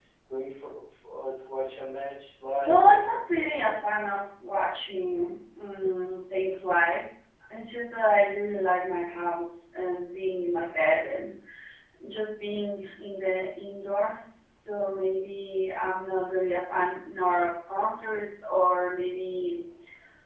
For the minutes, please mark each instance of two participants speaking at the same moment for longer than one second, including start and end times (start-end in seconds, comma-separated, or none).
2.5-3.7